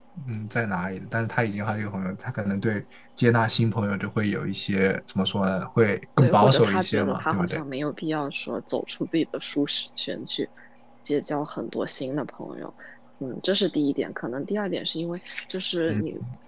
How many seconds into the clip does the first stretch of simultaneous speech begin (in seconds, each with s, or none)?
6.2 s